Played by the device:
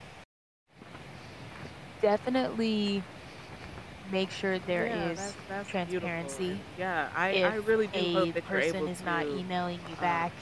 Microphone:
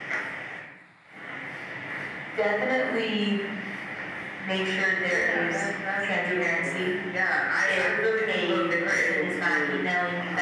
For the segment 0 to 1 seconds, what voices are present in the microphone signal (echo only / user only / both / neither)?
neither